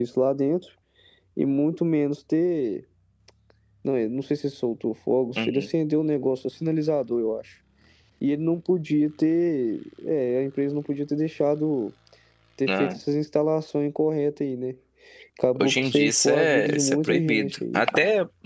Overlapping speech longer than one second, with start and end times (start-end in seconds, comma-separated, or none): 15.6-17.8